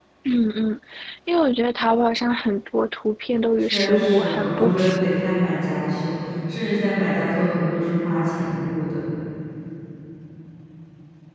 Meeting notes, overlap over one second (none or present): present